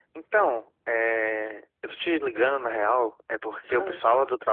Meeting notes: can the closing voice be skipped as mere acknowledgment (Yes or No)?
Yes